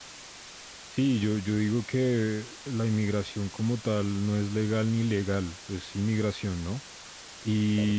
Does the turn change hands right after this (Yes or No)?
No